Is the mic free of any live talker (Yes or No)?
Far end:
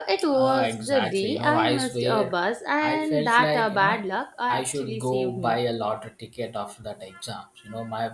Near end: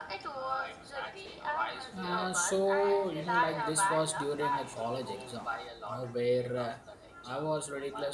No